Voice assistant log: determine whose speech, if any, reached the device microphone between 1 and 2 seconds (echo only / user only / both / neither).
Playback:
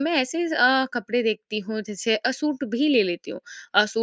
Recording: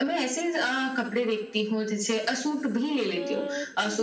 echo only